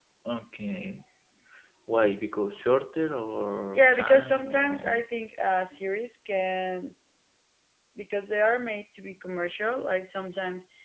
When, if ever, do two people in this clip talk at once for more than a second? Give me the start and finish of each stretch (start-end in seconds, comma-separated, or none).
3.7-5.0